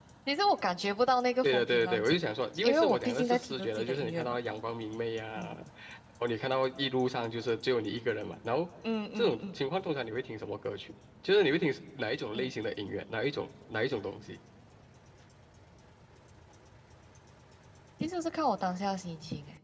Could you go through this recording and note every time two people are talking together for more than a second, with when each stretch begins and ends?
1.4-4.4

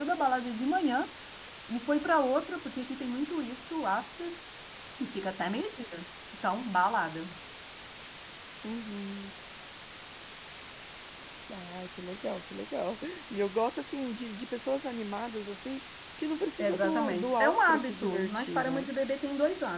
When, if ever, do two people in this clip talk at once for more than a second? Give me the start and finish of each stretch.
16.6-18.9

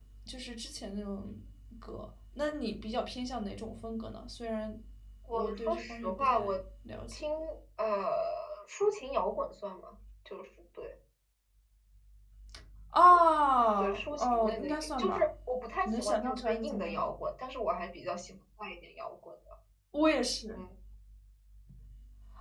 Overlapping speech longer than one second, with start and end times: 5.3-6.6, 13.8-15.3, 15.8-17.1

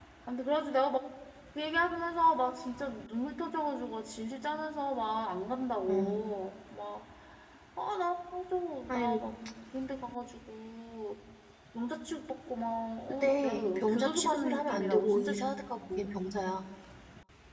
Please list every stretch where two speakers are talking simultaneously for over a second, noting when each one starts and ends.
13.1-15.5

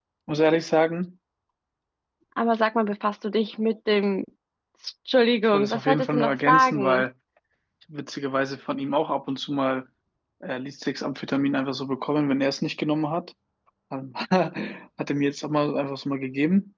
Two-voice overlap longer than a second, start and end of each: 5.5-7.0

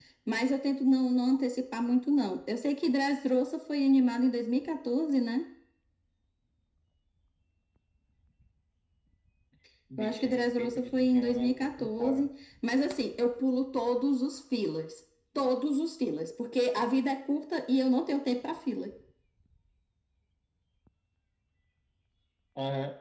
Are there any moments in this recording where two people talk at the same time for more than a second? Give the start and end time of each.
10.0-12.3

